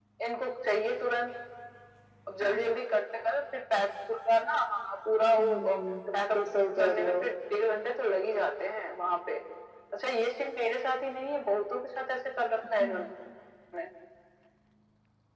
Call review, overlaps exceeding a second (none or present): none